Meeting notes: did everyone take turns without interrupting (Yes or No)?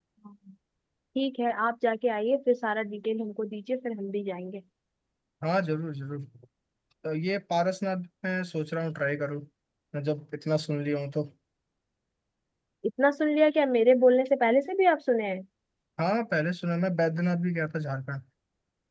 Yes